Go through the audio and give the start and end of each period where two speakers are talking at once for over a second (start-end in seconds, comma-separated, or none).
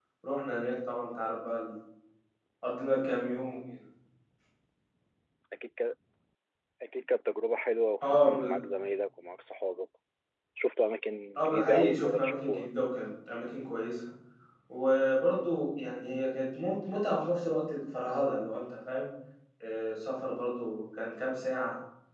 11.4-12.7